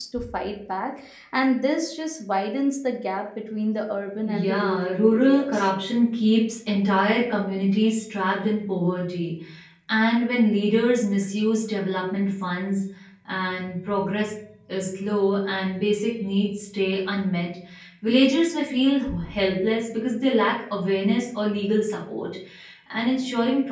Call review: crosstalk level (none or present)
present